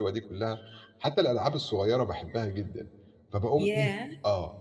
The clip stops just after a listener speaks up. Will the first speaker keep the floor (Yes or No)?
Yes